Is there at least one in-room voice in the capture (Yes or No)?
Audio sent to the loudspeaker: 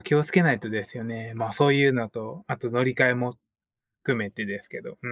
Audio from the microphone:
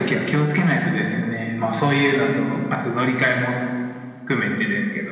No